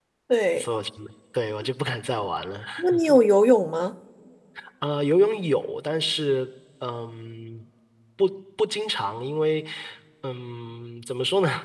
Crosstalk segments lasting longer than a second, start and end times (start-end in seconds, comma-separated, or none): none